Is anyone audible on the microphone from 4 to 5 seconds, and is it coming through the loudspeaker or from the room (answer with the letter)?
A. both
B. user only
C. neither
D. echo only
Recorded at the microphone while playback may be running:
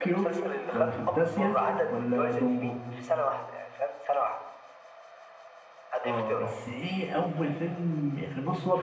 D